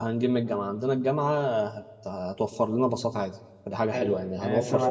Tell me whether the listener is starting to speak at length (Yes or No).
Yes